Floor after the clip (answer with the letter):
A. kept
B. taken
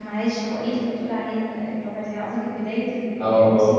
B